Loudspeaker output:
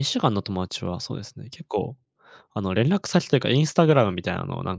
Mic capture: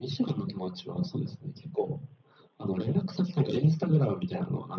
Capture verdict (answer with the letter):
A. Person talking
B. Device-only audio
B